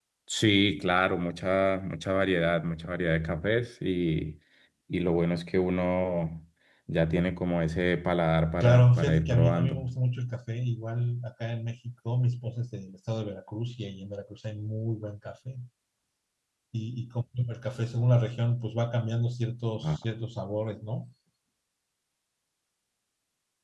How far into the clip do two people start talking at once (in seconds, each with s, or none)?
8.6 s